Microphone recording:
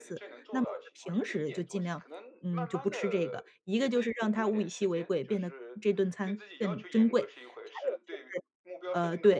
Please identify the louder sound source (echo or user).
user